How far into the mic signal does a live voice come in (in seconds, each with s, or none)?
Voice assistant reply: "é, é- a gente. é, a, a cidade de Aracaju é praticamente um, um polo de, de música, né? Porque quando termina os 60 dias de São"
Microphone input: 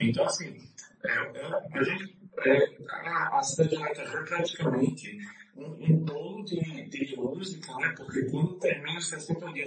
none